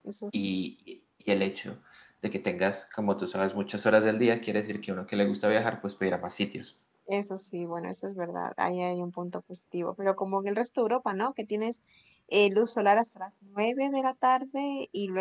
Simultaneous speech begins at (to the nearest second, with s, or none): none